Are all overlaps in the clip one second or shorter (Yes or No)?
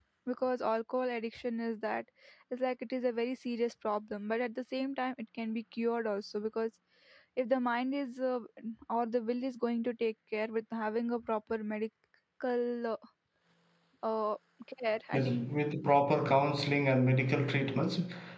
Yes